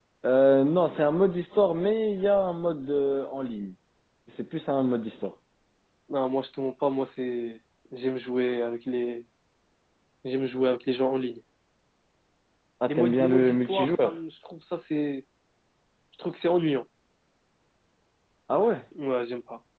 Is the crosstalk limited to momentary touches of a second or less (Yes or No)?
No